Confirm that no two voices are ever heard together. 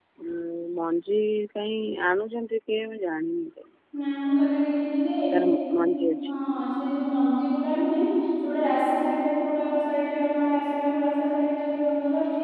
Yes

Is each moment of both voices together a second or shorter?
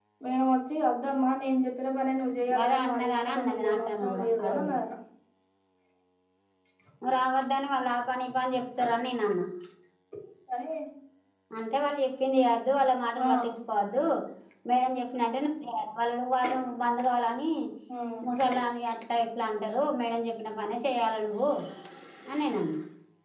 No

